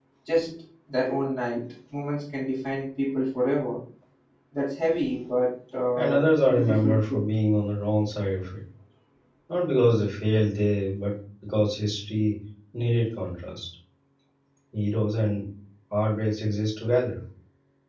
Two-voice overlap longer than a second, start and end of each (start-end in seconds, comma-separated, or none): 6.0-7.2